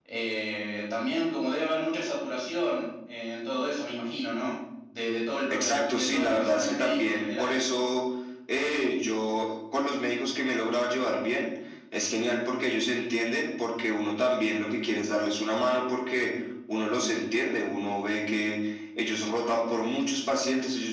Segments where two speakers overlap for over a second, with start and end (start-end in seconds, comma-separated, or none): 5.5-7.6